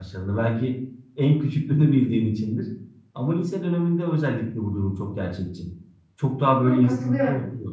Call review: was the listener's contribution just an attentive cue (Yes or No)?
No